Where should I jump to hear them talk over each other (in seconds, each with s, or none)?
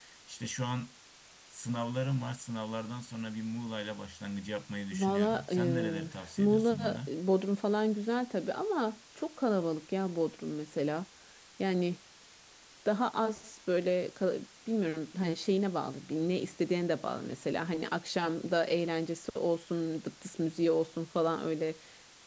4.9 s